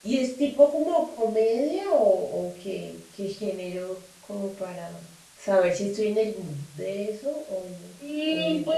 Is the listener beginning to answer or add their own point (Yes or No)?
Yes